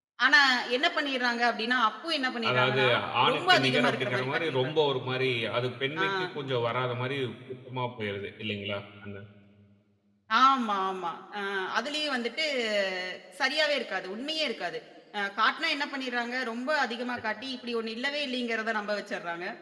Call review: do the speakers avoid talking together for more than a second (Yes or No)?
No